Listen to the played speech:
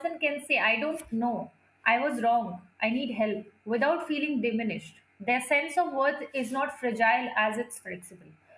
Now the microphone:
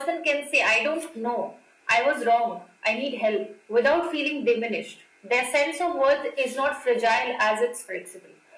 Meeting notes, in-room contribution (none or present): none